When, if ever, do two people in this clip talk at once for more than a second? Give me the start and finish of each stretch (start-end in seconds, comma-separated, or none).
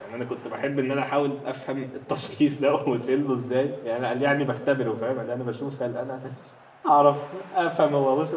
none